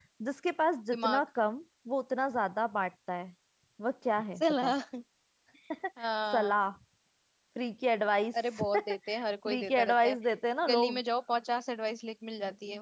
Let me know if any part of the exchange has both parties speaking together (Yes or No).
Yes